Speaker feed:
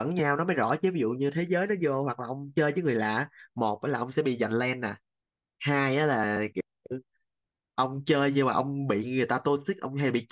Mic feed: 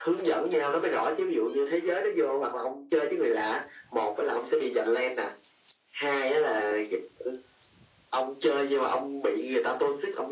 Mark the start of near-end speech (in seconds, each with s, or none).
none